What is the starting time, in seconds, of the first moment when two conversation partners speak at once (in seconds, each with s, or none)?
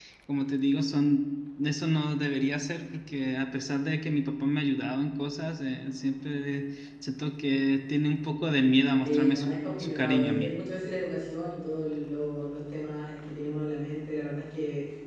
9.0 s